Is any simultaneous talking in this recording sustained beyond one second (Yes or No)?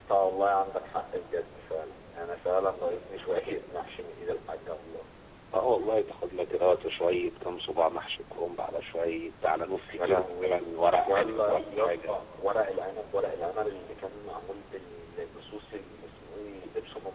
Yes